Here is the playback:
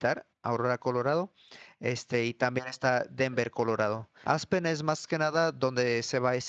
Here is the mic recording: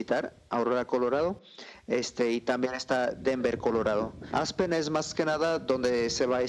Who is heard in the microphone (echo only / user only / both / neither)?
echo only